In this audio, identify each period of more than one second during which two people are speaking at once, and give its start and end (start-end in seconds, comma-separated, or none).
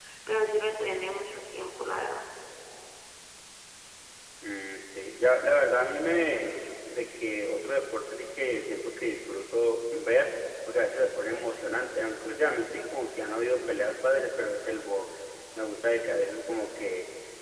none